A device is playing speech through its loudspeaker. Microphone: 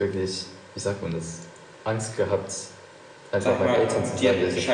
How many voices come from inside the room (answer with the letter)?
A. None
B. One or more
B